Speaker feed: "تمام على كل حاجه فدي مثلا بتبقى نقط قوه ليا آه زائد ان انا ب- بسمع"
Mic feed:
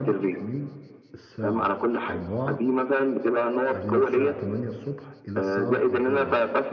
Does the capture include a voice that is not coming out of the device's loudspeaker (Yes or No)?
Yes